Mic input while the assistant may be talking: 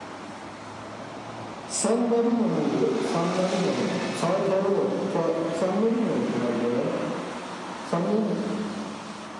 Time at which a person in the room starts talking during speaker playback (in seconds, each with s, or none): none